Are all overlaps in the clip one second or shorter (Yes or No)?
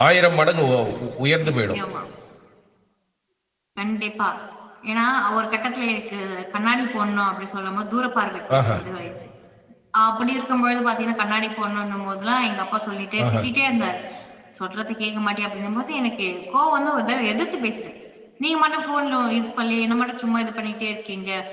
Yes